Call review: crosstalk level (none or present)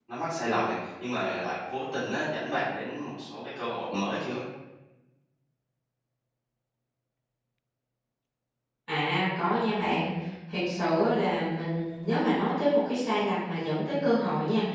none